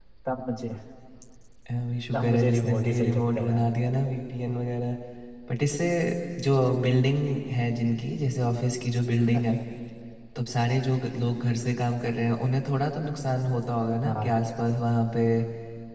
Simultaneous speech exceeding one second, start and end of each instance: 2.1-3.7

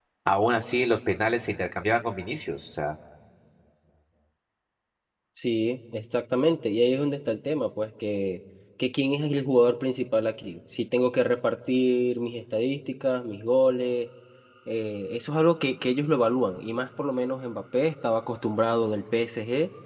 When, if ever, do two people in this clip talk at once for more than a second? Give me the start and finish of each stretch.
none

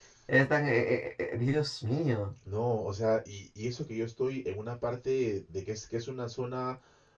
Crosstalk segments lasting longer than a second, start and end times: none

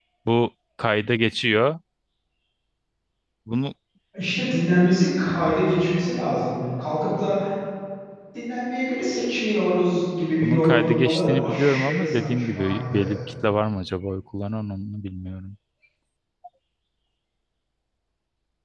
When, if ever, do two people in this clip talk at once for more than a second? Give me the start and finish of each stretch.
10.4-13.2

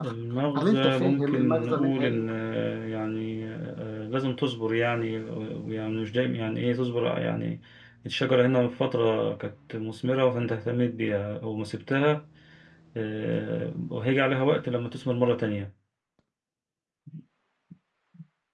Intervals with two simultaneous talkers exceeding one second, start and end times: 0.6-2.3

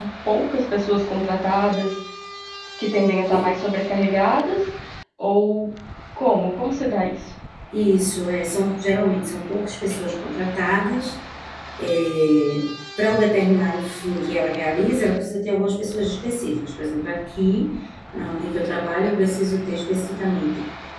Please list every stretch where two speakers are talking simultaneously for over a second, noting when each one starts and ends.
none

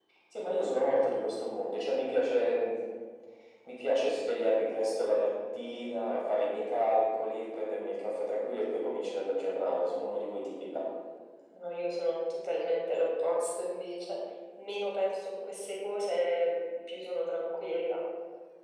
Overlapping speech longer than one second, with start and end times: none

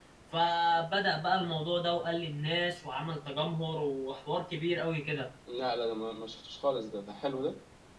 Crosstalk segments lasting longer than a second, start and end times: none

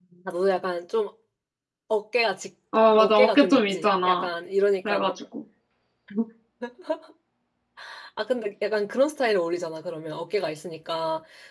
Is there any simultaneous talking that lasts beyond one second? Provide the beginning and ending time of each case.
3.0-4.3

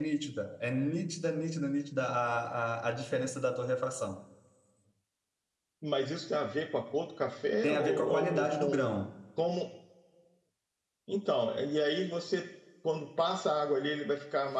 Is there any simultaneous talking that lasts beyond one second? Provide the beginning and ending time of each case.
7.7-9.0

